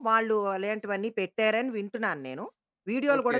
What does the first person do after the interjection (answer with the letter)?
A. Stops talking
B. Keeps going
A